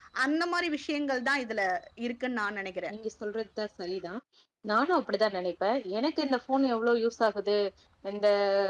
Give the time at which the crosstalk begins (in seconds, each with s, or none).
none